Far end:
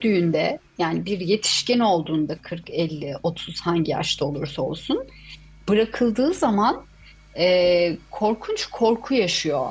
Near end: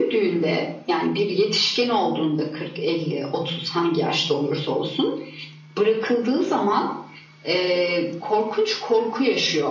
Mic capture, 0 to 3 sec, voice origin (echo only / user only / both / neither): echo only